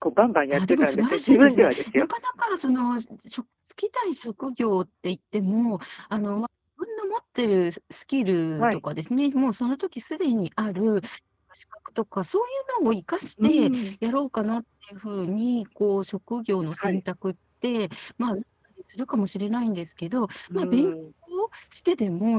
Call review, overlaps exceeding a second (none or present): present